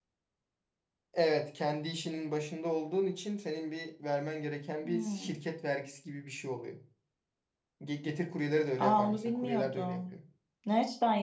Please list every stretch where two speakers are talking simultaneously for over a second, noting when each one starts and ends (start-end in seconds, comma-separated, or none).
8.8-10.0